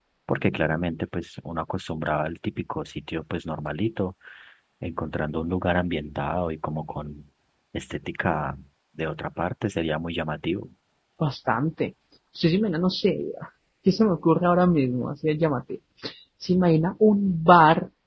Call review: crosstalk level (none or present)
none